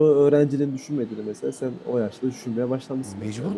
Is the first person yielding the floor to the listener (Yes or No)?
Yes